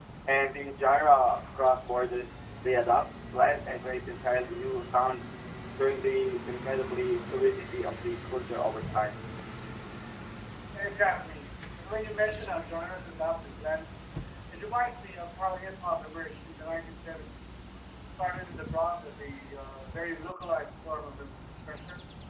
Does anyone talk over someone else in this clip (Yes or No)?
No